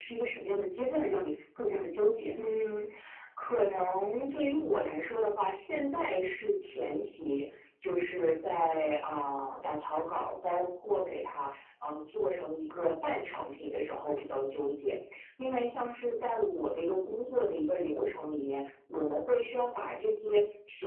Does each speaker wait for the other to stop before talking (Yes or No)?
Yes